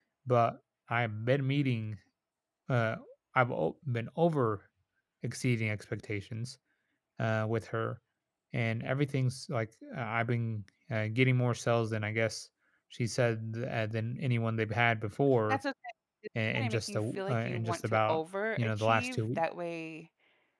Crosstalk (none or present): present